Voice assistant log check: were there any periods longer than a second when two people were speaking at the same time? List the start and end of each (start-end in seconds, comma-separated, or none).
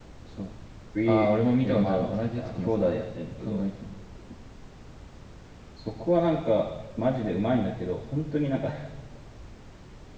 1.1-2.7